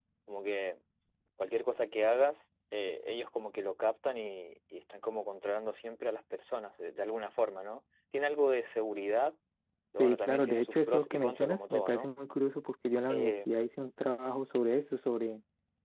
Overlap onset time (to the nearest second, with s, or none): 10 s